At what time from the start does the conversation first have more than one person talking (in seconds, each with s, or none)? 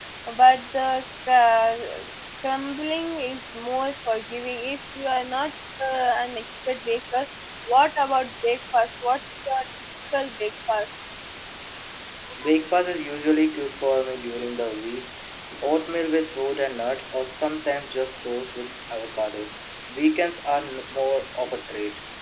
none